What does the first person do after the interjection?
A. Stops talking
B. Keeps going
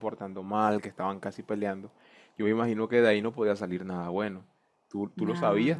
B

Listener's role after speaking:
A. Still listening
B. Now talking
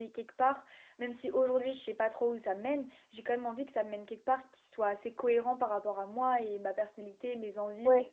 A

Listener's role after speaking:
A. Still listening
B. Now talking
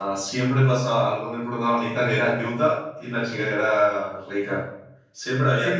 B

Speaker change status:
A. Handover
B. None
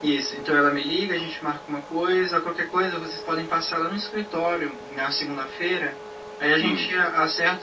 B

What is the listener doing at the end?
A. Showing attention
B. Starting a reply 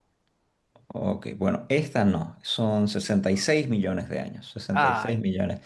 A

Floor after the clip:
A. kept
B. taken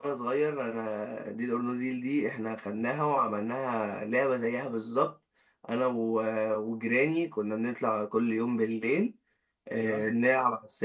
A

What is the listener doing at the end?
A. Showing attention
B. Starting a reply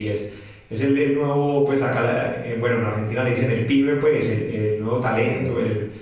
A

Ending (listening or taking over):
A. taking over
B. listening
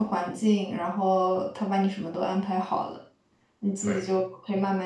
B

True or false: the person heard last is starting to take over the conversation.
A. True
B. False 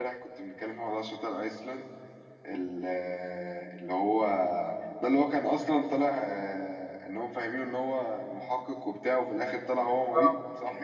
A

